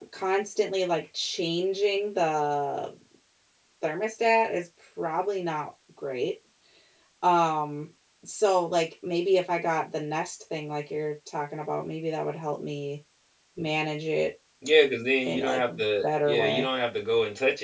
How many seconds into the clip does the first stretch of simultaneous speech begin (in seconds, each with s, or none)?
15.2 s